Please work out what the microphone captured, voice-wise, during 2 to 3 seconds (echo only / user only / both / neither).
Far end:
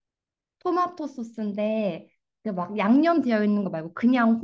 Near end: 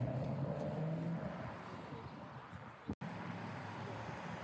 neither